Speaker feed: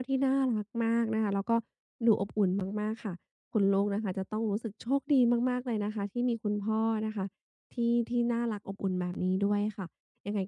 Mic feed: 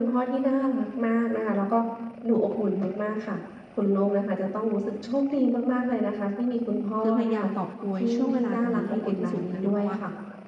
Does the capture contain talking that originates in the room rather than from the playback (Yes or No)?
Yes